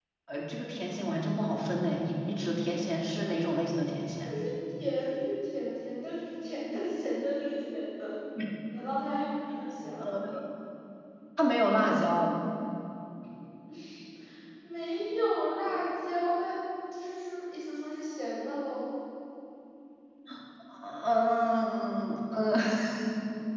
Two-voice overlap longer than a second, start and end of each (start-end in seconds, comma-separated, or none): none